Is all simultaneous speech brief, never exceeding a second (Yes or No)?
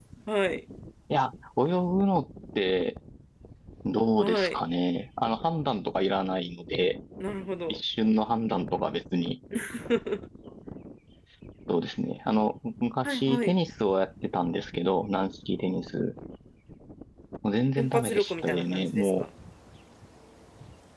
No